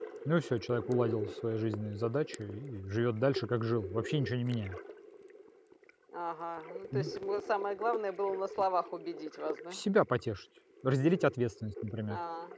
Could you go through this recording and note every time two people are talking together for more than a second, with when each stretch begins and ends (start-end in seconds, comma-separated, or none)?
none